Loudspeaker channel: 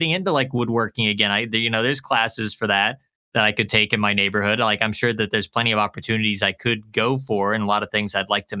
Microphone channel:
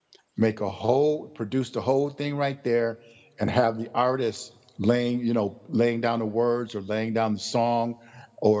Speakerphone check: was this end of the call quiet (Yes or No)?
No